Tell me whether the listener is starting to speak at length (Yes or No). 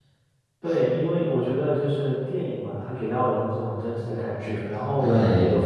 No